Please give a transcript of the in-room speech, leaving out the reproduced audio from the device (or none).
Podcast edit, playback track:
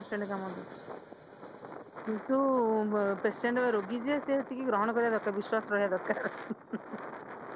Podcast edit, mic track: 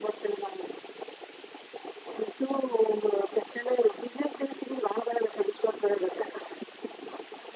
none